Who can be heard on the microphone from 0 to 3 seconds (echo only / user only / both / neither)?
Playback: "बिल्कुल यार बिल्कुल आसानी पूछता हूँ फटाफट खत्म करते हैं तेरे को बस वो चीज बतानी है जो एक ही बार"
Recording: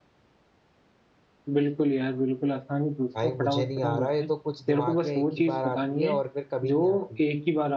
echo only